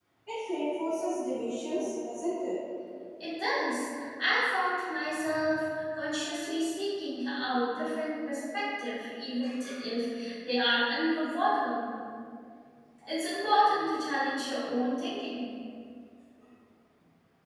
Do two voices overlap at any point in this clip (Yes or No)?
No